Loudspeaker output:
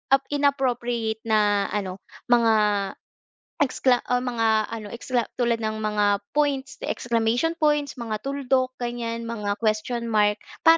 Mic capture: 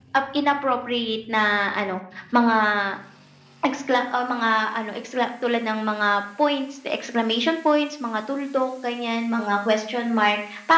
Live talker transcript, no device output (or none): none